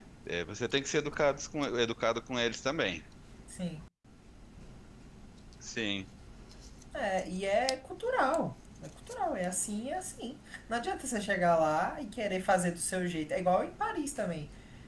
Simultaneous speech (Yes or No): No